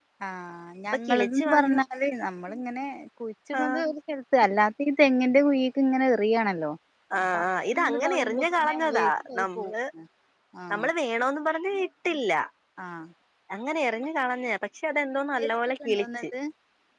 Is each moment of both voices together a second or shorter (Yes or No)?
No